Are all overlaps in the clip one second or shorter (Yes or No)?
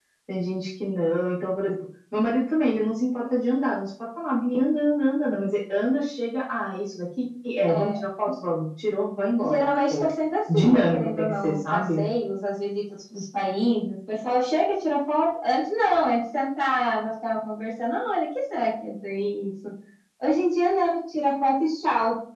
No